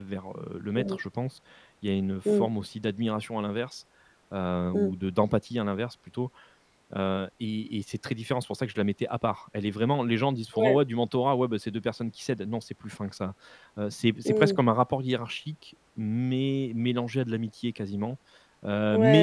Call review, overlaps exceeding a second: none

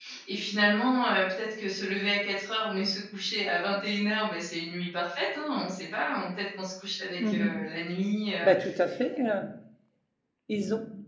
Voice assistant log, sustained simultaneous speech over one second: none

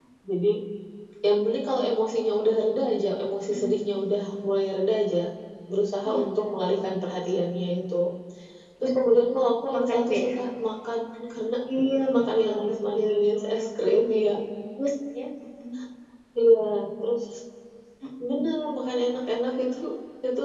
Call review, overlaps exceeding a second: present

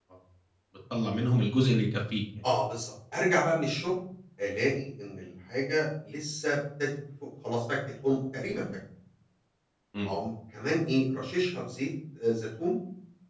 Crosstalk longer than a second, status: none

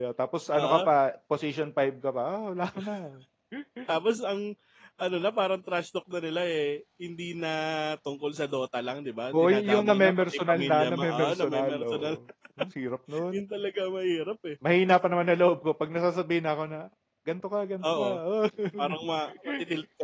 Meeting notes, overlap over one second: present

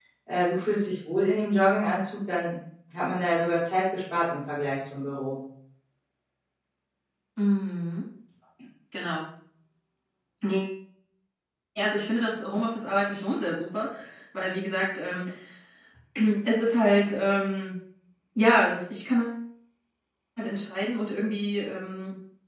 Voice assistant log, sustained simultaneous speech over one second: none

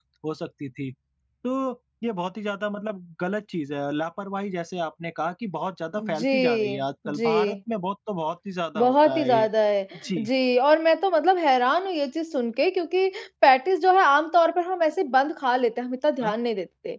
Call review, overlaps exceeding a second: present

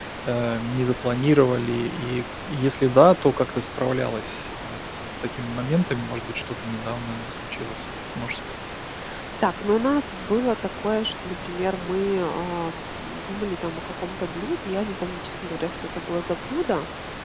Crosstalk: none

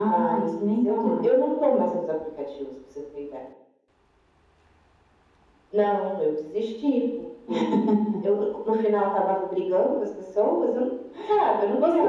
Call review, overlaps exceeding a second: present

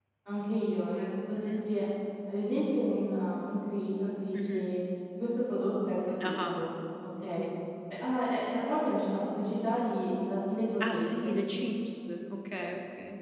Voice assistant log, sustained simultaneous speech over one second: none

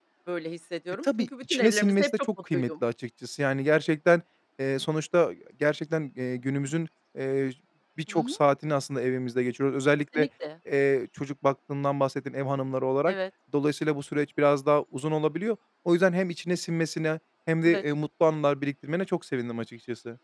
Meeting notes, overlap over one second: present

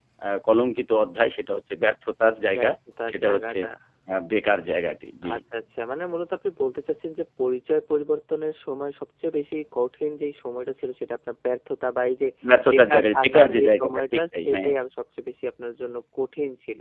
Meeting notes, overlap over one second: present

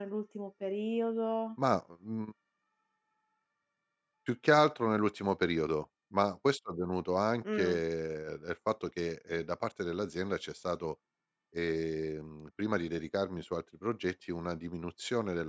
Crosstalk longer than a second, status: none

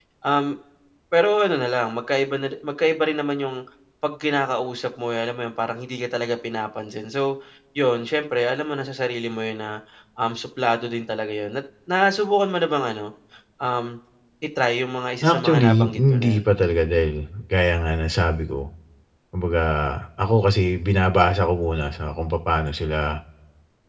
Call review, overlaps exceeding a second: present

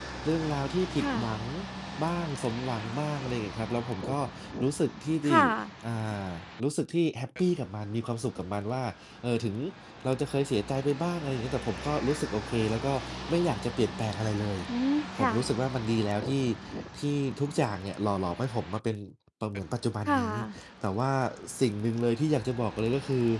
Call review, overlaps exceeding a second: none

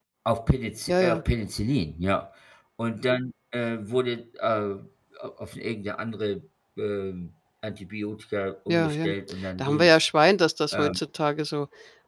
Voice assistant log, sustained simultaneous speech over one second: none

